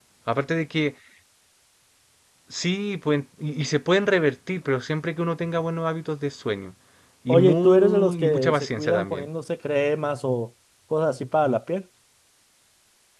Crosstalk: present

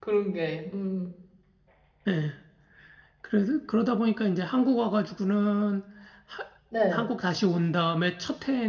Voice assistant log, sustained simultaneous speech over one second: none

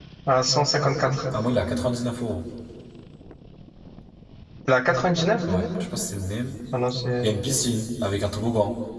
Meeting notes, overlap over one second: none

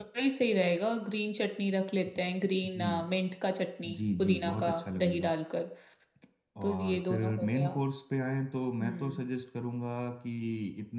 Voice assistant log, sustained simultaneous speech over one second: present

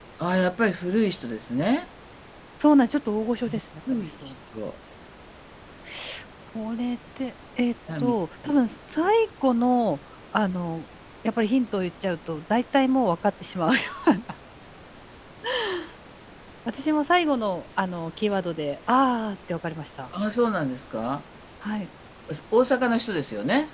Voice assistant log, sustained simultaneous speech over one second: none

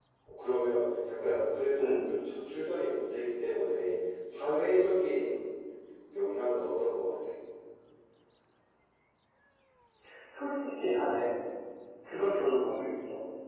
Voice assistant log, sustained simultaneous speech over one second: none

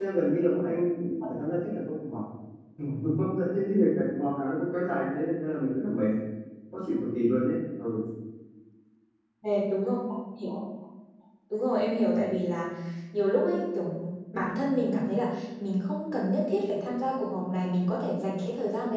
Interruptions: none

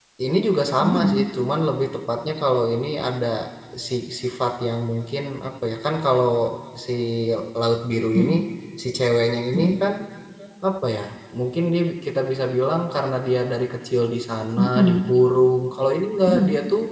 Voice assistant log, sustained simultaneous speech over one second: none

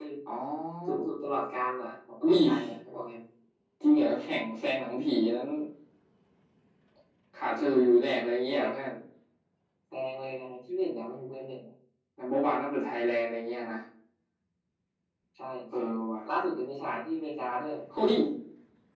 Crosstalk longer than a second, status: none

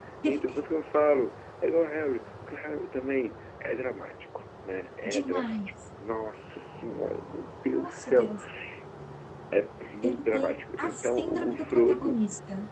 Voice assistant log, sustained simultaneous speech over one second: present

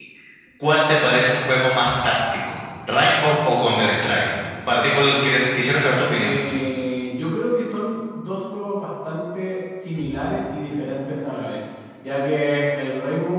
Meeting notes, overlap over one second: none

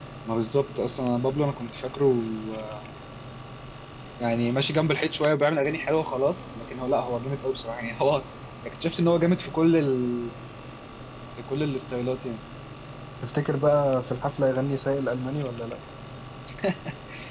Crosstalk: none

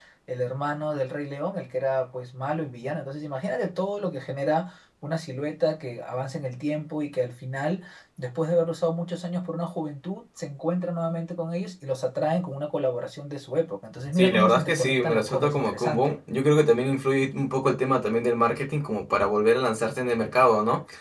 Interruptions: present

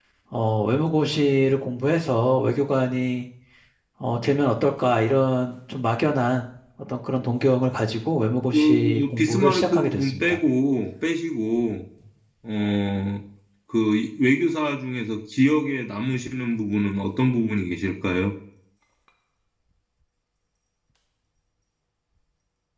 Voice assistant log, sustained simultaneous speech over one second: present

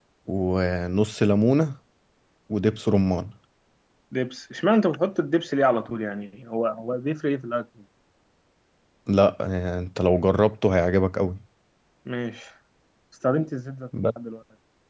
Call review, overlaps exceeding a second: none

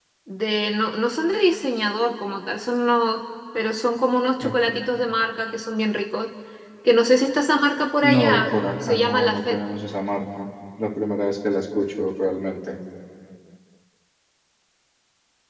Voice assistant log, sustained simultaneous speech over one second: present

